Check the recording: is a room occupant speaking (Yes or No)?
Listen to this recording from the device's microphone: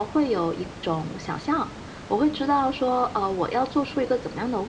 No